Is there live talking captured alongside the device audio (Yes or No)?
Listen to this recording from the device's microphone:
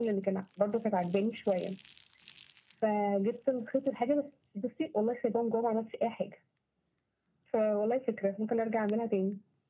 No